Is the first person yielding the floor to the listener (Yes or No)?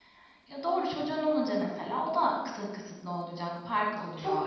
Yes